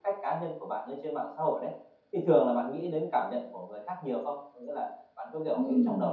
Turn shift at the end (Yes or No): No